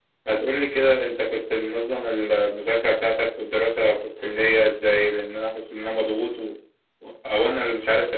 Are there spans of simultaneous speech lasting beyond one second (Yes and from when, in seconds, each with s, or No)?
No